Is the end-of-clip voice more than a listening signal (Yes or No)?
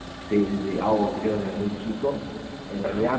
No